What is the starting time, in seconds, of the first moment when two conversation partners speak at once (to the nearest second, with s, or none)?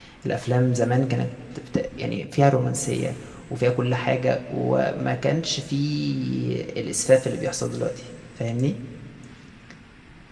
none